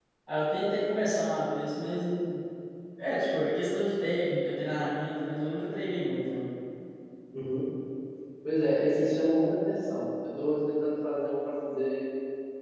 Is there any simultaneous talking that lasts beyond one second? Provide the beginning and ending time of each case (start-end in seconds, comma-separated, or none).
none